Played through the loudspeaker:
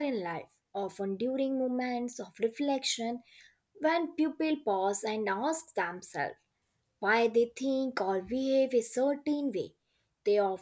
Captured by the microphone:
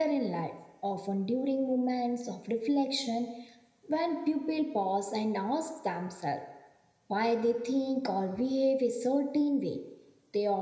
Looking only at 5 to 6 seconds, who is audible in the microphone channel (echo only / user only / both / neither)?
echo only